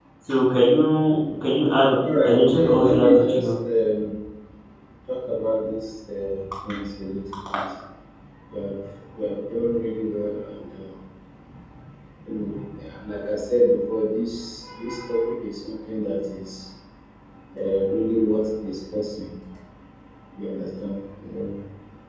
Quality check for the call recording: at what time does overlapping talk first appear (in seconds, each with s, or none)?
2.2 s